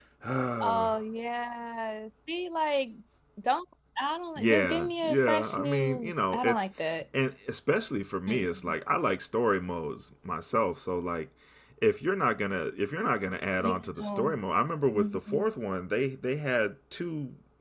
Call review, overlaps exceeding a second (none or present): present